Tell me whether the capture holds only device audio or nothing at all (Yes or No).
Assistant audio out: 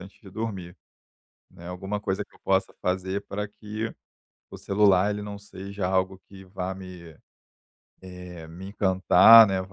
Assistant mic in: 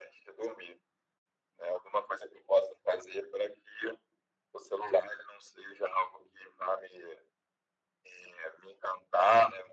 Yes